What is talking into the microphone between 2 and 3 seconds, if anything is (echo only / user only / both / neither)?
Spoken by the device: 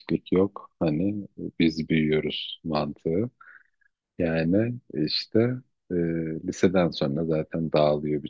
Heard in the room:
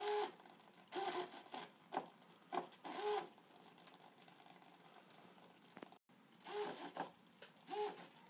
neither